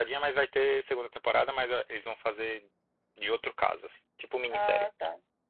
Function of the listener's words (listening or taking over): taking over